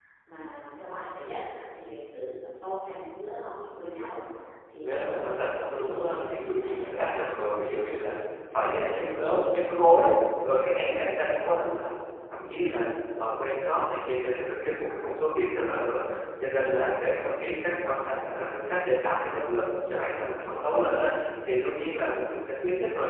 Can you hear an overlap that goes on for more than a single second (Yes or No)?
Yes